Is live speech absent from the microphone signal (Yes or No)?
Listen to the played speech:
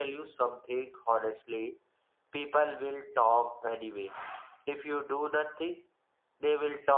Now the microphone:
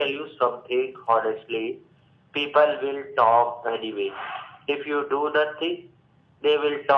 Yes